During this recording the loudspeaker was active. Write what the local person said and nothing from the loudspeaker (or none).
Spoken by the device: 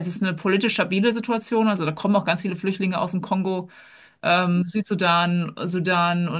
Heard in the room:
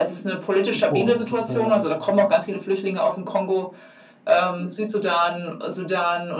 und äh,